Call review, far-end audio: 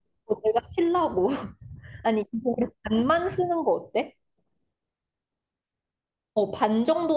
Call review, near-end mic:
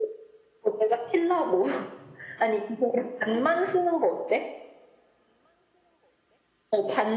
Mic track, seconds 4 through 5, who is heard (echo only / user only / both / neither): echo only